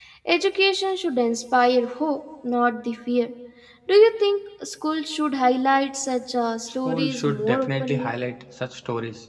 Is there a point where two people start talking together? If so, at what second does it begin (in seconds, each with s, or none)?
6.8 s